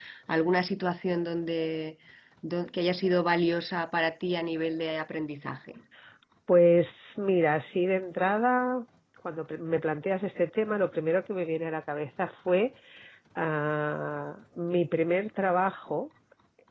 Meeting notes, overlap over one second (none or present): none